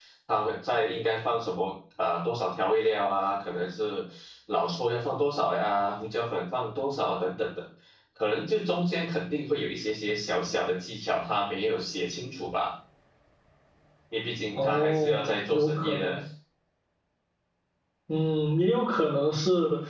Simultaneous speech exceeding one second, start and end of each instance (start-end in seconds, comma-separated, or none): 14.6-16.2